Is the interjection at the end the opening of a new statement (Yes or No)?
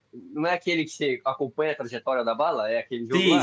Yes